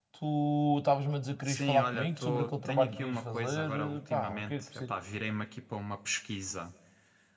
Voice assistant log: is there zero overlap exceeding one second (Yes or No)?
No